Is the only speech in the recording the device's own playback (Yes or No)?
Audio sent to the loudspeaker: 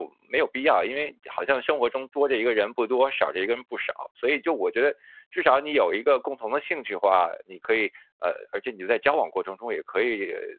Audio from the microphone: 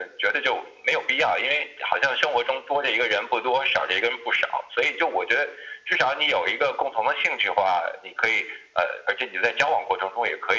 Yes